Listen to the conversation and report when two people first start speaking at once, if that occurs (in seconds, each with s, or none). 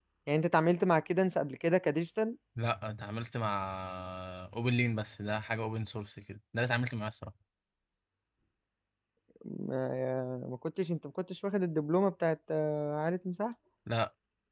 none